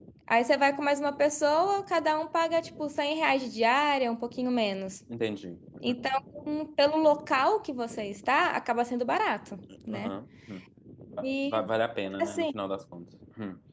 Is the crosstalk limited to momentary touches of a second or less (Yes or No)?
Yes